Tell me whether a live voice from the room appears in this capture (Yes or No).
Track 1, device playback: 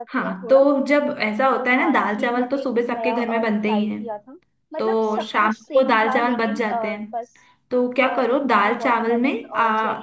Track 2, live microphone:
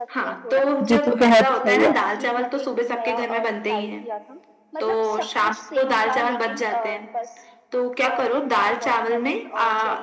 Yes